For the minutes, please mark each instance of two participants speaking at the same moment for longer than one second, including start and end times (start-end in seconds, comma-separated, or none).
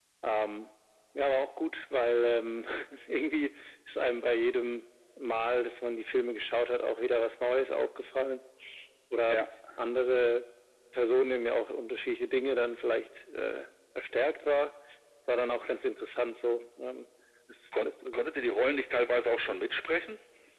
none